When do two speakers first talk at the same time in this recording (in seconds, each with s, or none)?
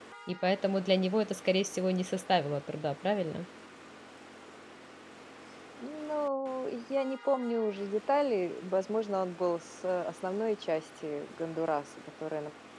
none